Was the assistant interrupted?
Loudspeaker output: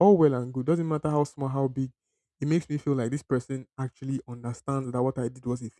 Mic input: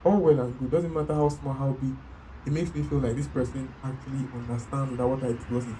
No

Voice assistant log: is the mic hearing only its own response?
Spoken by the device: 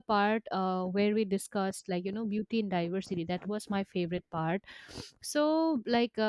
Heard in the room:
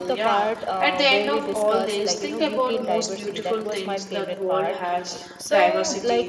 No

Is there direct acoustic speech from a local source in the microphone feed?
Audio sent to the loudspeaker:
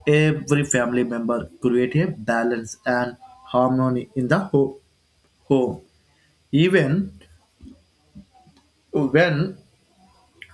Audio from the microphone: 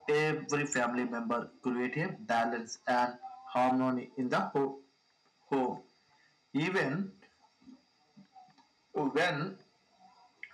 No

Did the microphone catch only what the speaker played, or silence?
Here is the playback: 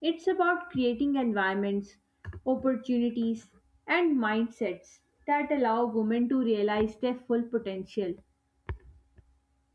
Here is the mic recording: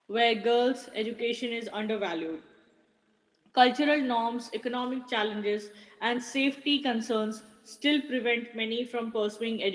No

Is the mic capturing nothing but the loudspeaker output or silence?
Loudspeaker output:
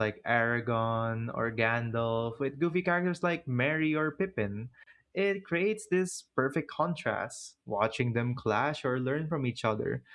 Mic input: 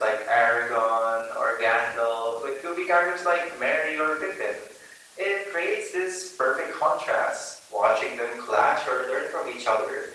Yes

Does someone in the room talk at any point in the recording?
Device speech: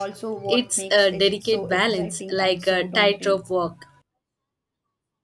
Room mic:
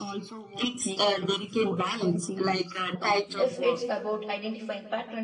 Yes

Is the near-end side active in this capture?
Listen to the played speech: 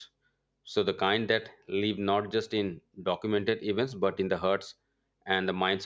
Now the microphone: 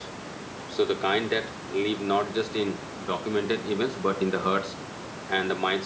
No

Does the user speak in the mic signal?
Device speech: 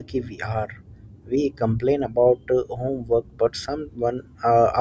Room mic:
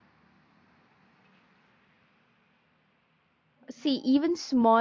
Yes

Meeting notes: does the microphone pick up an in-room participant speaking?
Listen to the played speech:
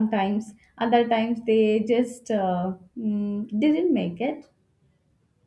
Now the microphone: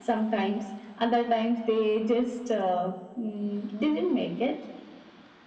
No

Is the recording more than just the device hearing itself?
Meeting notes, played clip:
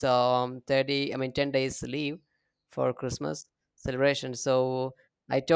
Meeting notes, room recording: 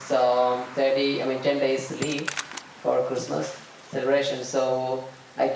No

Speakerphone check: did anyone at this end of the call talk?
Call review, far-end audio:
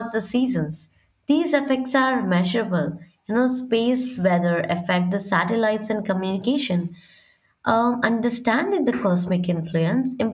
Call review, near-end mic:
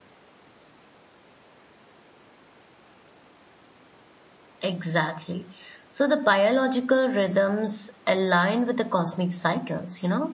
Yes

